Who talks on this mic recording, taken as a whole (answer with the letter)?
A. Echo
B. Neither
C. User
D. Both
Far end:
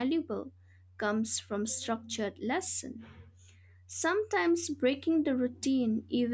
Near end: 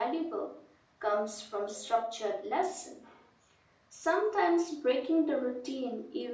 A